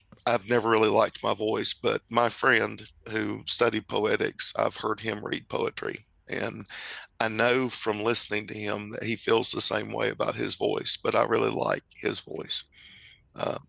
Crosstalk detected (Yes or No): No